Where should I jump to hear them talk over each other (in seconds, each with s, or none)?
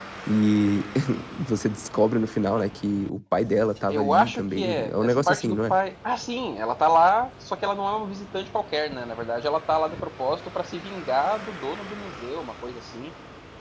3.9 s